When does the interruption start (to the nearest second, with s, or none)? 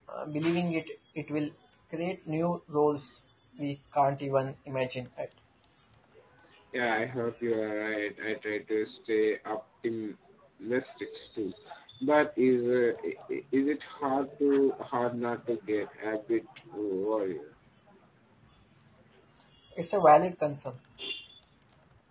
none